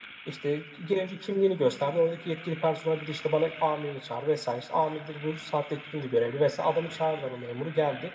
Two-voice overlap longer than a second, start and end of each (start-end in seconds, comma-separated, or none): none